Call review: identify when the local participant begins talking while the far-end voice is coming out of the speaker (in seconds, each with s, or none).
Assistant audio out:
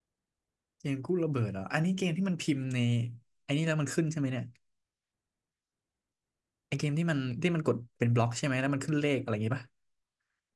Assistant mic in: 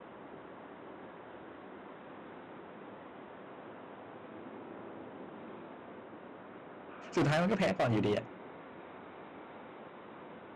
7.2 s